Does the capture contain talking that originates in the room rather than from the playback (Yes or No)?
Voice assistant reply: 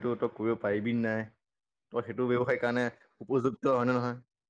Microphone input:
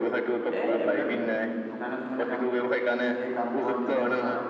Yes